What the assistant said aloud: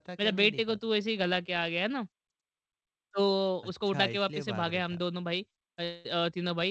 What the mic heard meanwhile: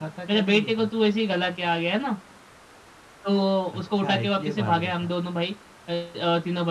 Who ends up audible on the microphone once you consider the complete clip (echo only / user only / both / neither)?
echo only